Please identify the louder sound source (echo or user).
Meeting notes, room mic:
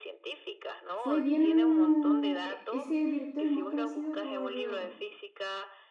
user